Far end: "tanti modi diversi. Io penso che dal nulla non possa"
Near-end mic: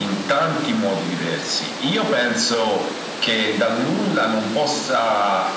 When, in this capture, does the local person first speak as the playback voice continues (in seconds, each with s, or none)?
none